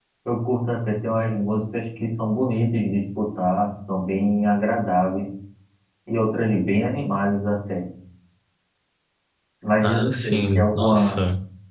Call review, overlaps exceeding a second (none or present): present